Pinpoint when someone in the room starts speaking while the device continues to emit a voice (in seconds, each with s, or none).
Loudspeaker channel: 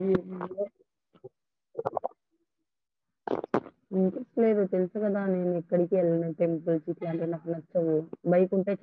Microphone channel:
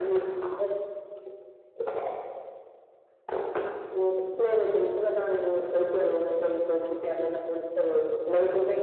none